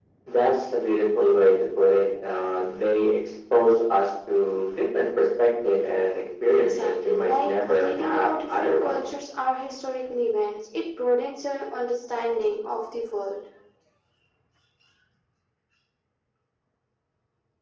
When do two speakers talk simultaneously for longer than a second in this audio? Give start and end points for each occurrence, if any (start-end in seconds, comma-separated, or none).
6.5-9.0